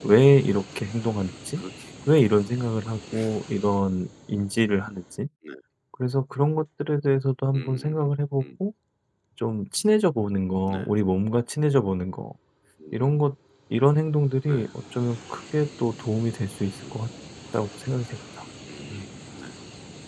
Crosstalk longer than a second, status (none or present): none